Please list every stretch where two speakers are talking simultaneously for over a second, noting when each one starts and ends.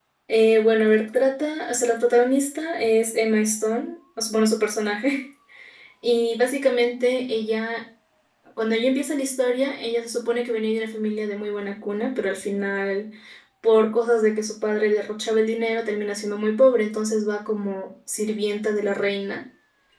none

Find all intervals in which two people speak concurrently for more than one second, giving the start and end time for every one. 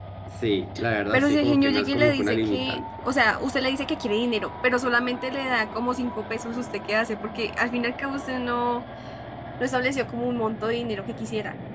1.1-2.8

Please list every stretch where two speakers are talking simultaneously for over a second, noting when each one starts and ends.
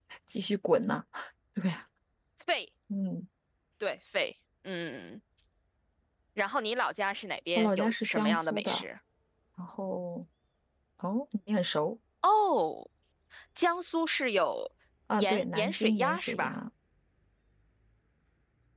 7.6-8.8, 15.2-16.5

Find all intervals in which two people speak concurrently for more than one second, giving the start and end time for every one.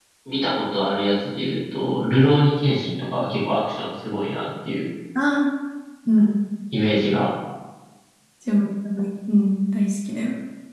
none

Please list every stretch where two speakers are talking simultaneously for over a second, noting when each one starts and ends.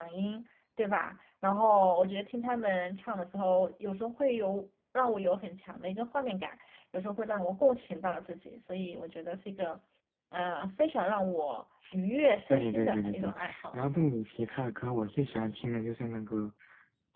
12.5-13.7

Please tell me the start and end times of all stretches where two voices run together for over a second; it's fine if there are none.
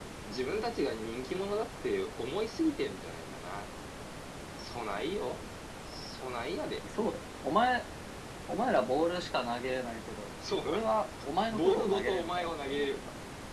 11.5-12.8

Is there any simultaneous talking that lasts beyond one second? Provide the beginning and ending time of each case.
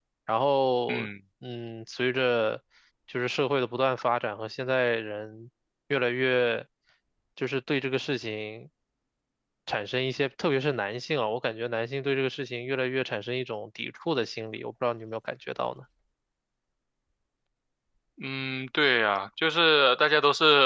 none

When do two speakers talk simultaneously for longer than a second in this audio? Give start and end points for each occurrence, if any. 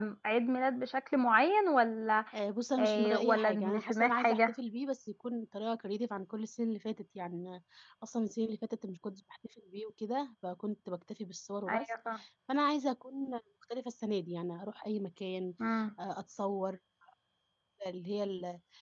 2.8-4.5

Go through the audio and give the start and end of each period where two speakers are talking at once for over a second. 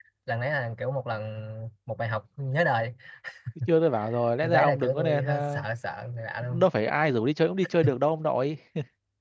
4.4-5.6

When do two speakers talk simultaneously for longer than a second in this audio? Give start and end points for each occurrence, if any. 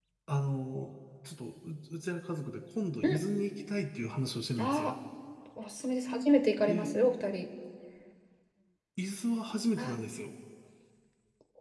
none

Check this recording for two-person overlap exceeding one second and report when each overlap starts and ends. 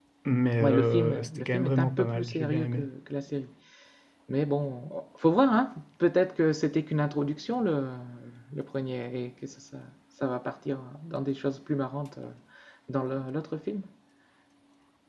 0.6-2.9

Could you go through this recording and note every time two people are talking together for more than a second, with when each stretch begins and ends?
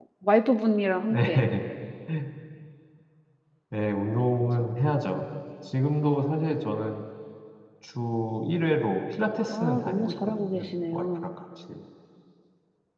9.4-11.1

